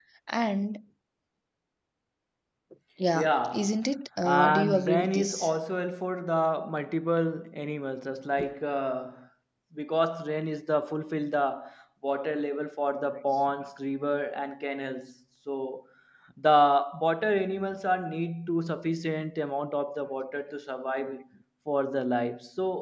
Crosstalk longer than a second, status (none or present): present